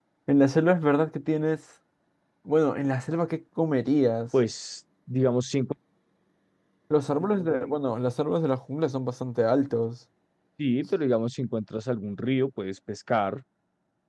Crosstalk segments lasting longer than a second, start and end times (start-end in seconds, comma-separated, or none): none